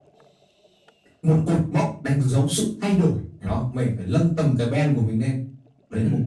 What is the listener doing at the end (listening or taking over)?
taking over